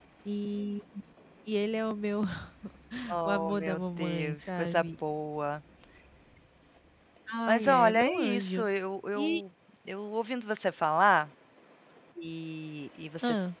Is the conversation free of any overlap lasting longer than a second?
No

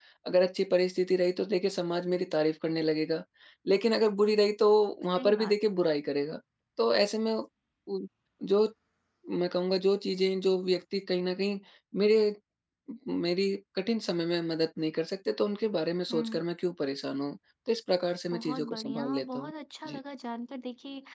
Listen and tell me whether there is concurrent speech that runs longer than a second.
Yes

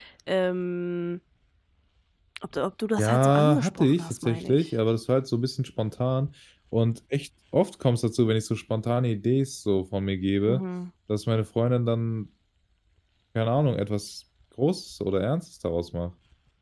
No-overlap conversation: No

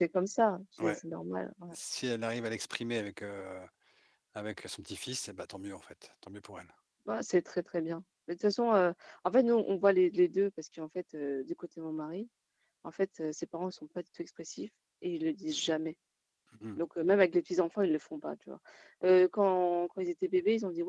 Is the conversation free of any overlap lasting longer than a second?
Yes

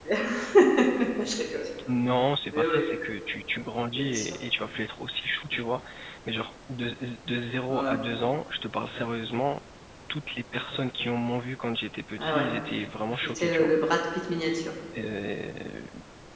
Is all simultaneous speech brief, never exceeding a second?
Yes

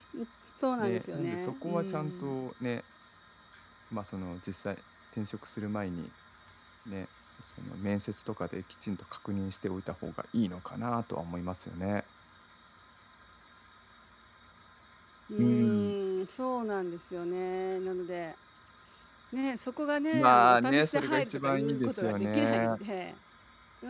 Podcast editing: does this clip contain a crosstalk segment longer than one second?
Yes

